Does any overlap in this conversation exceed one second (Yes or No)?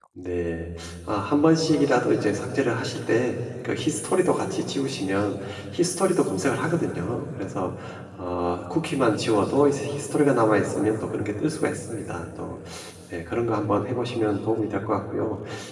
No